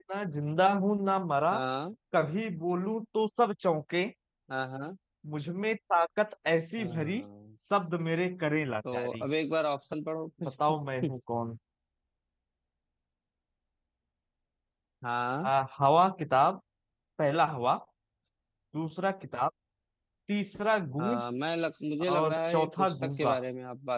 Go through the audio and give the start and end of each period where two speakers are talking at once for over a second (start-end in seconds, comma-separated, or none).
22.1-23.4